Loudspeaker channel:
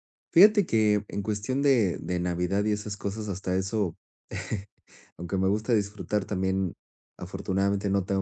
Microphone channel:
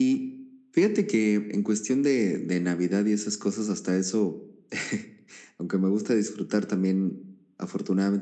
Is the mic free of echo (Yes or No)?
No